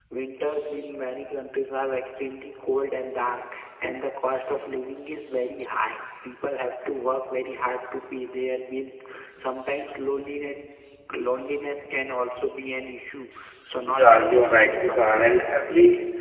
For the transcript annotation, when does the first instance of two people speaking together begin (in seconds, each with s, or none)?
13.9 s